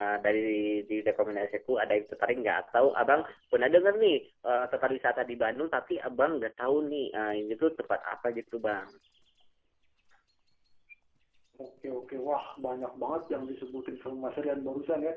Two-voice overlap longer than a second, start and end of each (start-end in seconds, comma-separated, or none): none